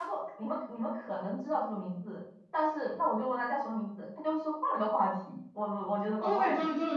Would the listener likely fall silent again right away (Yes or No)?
No